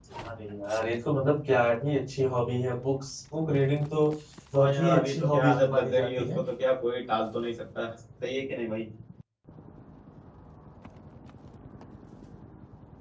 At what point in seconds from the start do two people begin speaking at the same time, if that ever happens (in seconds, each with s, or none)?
4.6 s